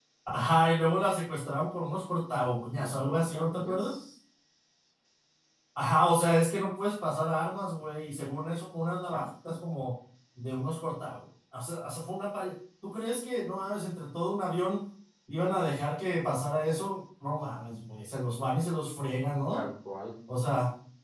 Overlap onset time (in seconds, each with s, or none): 2.7 s